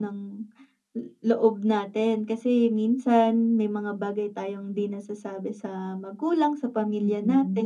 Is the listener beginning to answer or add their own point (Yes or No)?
Yes